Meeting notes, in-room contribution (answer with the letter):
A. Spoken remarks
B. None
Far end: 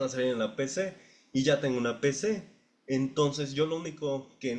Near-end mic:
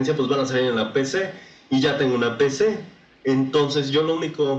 B